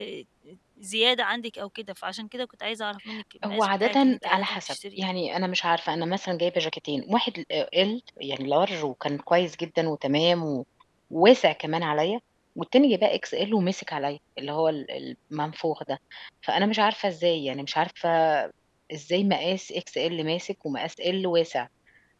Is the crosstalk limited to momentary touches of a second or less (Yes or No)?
No